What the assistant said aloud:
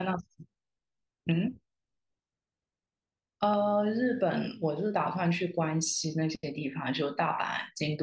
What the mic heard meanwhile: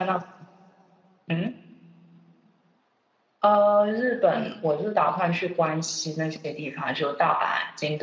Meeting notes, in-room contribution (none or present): none